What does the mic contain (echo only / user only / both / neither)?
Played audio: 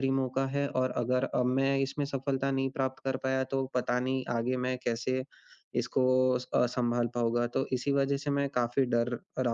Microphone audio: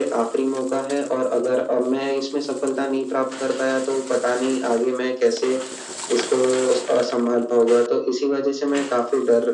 echo only